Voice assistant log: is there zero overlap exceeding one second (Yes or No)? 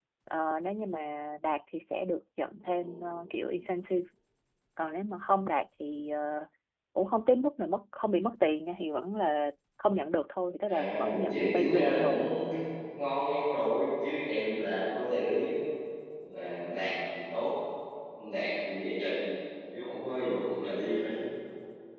No